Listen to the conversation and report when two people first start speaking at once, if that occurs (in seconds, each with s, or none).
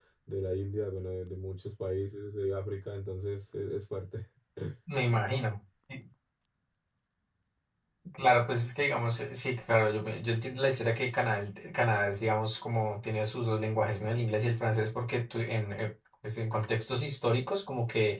none